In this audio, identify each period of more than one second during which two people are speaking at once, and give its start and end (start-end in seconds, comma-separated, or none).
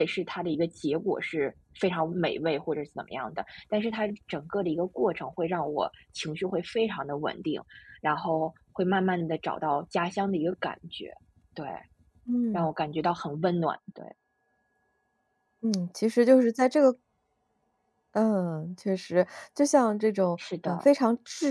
none